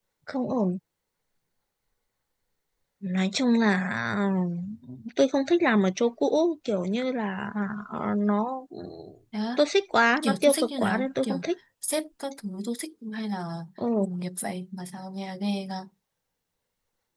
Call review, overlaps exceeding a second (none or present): present